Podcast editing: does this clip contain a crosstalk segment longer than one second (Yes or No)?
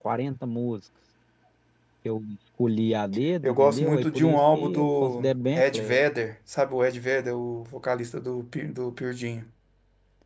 Yes